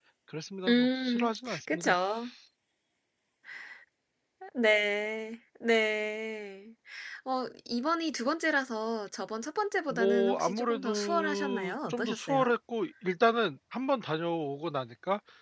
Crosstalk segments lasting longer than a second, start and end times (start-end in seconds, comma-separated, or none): 0.7-1.9, 9.9-12.5